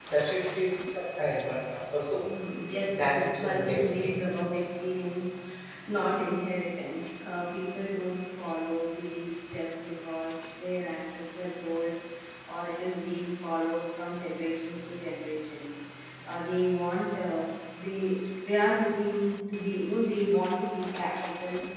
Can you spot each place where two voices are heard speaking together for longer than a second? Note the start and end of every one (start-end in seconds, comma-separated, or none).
2.9-4.2